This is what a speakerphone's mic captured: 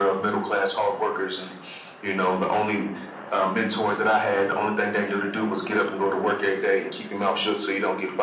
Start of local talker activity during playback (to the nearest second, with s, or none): none